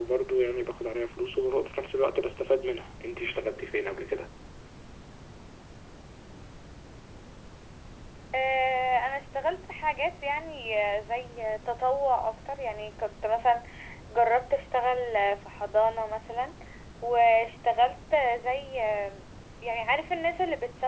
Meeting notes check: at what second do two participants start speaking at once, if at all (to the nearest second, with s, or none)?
none